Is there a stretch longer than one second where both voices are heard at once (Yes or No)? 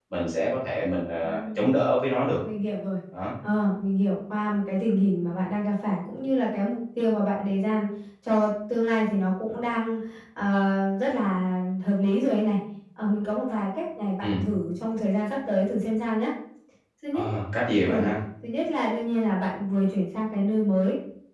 No